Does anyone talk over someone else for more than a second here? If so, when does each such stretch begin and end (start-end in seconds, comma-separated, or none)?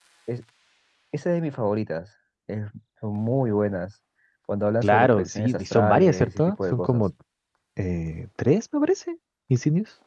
4.8-7.0